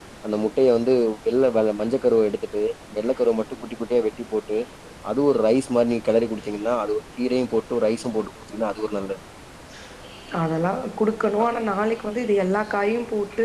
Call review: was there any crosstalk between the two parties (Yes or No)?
No